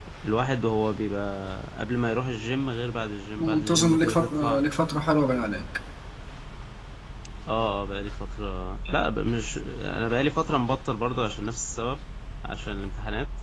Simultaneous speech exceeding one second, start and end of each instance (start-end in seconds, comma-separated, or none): 3.4-4.6